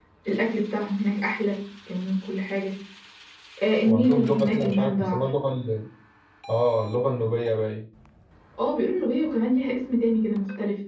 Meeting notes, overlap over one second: present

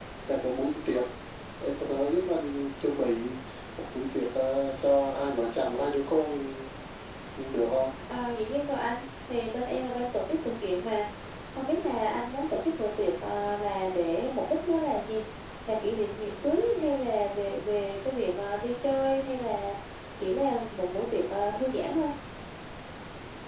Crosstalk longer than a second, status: none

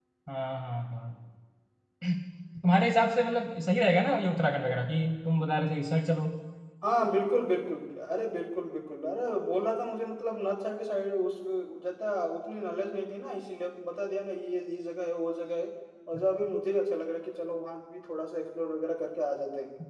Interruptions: none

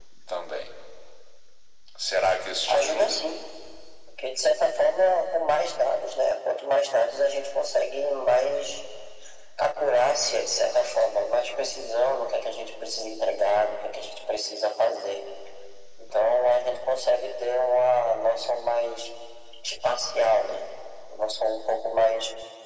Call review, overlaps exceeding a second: none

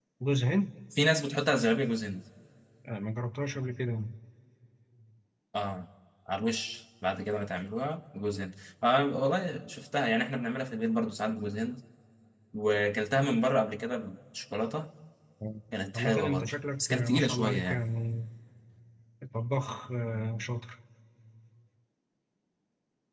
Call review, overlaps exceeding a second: present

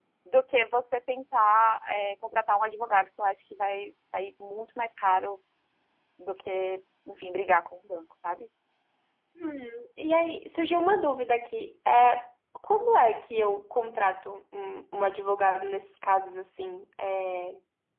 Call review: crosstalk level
none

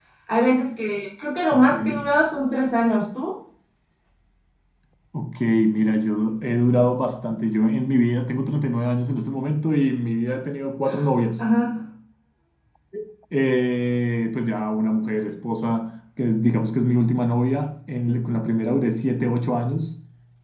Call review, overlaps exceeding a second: none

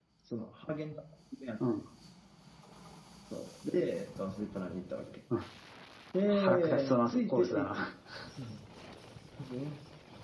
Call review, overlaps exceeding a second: present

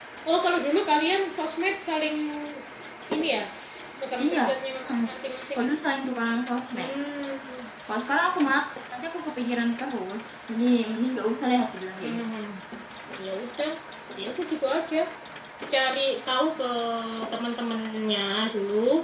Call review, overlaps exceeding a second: none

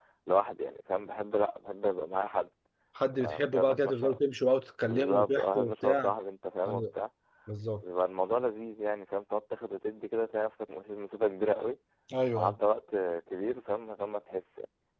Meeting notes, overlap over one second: present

